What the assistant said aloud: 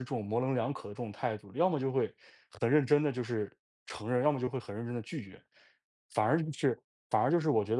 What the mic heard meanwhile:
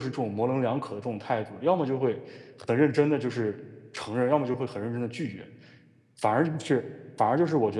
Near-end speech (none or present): none